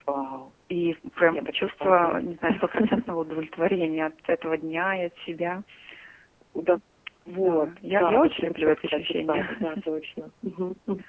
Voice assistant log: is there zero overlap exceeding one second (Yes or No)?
No